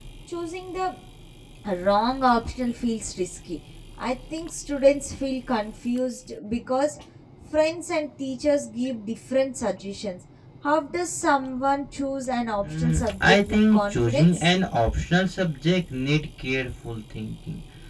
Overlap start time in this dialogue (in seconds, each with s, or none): 12.6 s